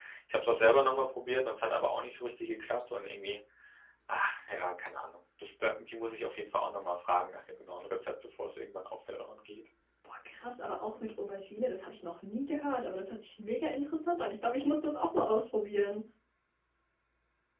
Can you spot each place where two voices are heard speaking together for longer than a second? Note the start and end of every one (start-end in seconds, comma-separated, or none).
none